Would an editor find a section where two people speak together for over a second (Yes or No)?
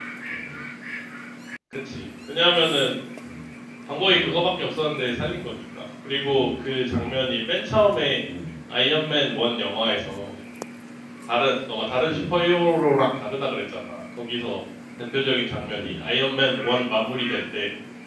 No